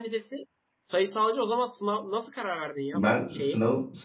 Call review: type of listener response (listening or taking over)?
taking over